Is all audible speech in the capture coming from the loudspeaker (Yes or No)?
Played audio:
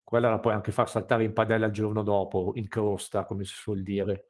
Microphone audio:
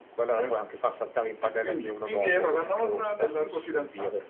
No